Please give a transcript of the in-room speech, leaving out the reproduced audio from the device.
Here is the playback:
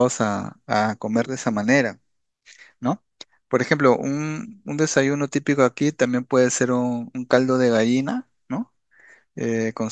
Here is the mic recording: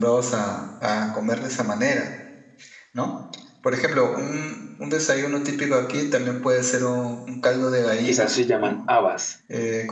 Quizás se llaman habas,

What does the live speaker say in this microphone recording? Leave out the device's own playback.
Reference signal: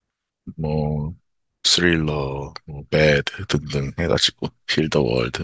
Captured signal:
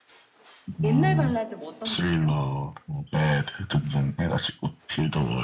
옛날 발라드 뭐 어떤 거예요?

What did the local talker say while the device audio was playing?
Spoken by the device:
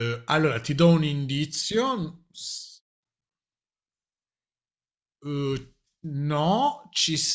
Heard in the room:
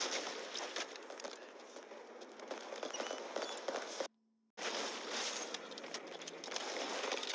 none

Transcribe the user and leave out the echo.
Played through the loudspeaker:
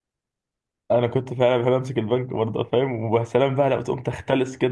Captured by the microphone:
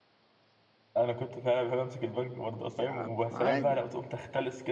ماشي يا عم عادي

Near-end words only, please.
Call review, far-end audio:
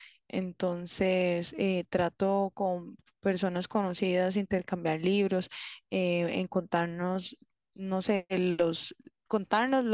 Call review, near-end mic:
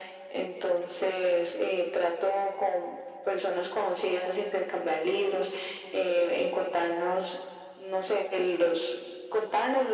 none

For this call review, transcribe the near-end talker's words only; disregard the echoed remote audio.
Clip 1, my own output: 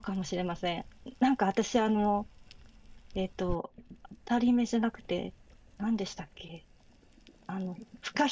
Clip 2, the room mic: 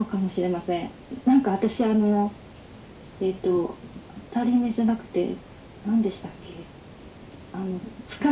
none

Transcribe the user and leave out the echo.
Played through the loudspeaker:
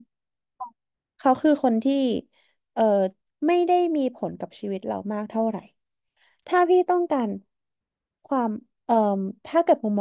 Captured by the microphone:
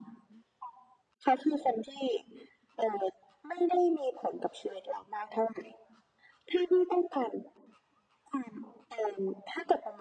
none

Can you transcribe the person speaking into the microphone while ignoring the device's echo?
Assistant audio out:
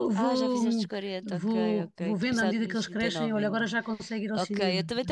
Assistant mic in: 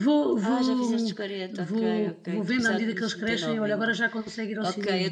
none

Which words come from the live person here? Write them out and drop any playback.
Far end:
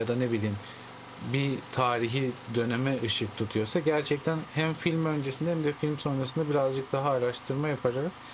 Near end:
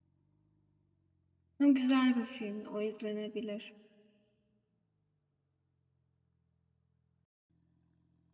o güzel bir film. O izlenebilir.

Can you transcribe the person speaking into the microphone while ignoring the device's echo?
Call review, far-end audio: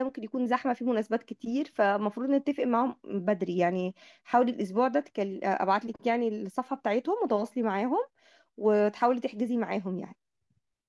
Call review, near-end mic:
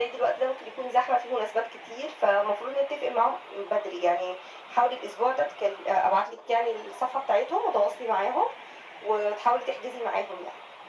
none

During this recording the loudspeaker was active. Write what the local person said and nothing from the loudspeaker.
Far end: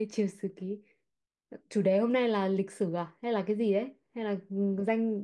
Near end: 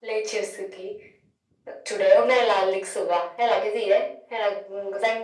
none

